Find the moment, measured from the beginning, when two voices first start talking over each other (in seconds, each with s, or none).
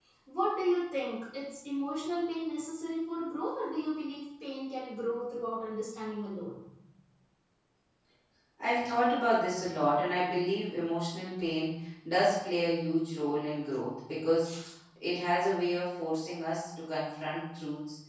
none